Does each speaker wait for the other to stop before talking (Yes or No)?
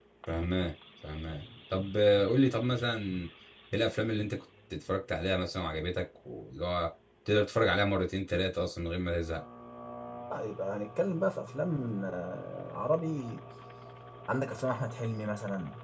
Yes